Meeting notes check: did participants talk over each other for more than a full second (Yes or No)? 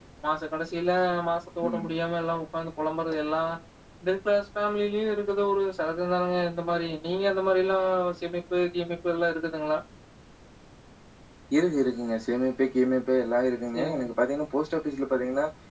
No